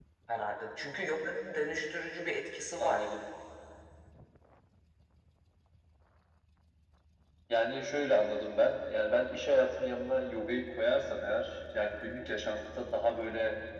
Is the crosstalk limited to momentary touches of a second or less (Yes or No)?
Yes